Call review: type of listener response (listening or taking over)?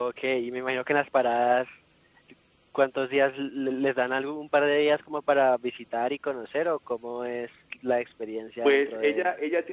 taking over